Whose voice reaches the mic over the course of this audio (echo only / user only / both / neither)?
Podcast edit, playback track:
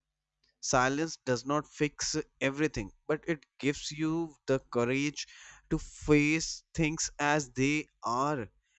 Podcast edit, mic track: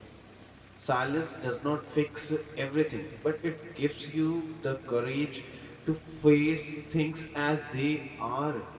echo only